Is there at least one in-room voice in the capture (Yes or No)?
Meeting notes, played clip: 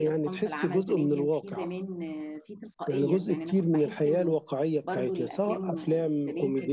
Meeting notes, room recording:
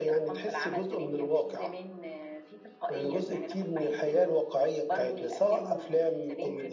No